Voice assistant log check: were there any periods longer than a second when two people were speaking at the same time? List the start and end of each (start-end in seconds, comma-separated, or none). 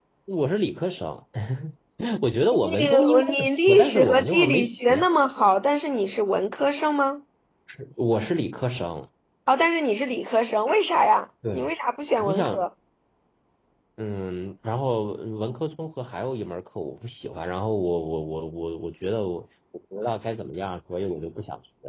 2.5-5.0